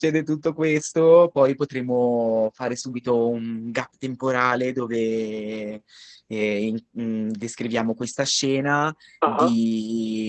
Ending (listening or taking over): listening